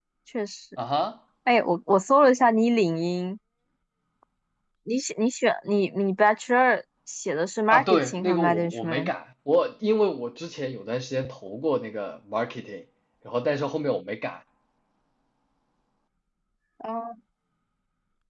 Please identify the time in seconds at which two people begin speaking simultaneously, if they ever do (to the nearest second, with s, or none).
8 s